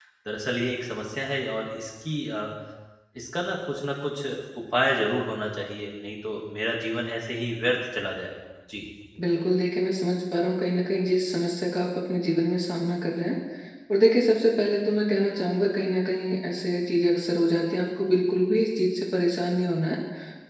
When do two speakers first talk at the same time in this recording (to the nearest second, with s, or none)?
none